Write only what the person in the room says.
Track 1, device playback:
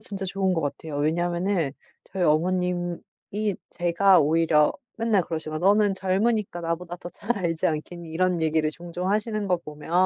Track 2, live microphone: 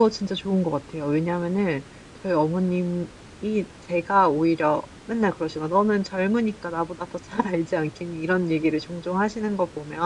none

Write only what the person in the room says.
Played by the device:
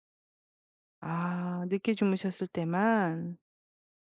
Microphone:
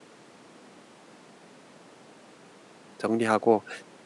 정리하고

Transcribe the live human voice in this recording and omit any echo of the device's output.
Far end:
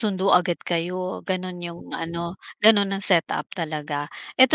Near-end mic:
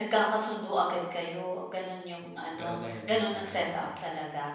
Pero dahil nga sa ano namin,

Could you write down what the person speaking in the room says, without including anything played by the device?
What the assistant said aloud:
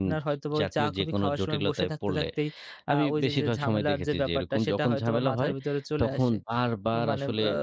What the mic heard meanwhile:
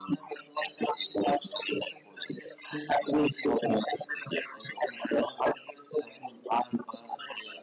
none

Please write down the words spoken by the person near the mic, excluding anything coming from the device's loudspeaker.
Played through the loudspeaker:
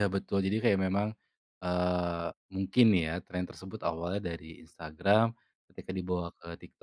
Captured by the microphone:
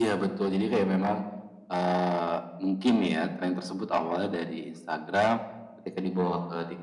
none

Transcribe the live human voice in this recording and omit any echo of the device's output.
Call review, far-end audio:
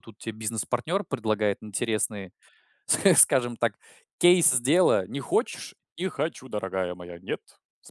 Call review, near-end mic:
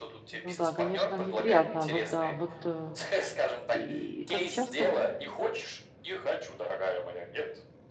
Ну да, конечно неприятно. Вот да, вот, э. И как часто вы?

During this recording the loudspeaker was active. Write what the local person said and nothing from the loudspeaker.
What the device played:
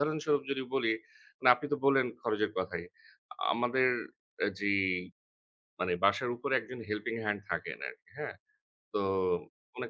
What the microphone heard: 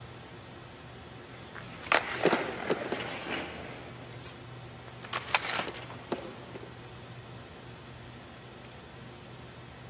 none

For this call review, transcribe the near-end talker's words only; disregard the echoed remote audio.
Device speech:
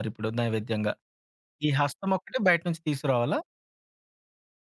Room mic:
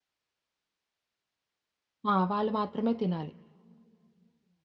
ఆ! వాళ్ళు మాత్రమే తినాలి.

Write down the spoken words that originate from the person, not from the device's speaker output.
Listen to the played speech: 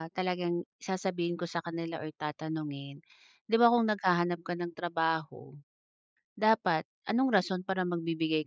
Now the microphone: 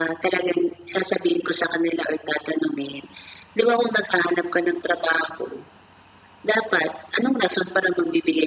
none

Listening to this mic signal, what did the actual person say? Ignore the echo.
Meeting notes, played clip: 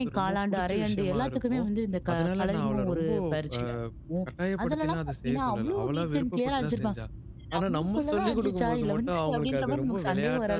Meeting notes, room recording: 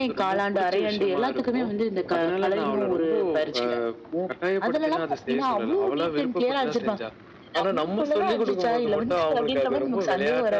none

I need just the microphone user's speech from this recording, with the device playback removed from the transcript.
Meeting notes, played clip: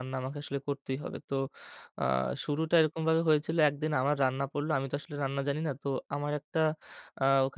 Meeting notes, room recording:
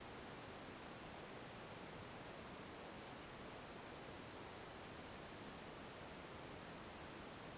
none

